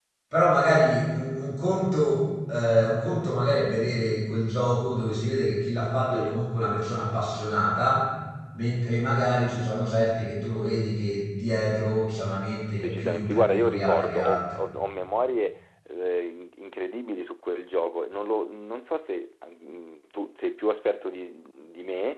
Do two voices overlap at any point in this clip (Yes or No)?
Yes